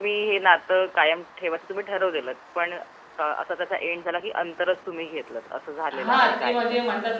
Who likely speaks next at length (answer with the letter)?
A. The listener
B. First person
A